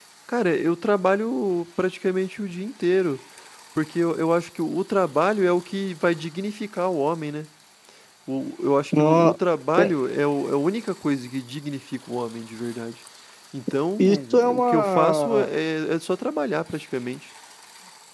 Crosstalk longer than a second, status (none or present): present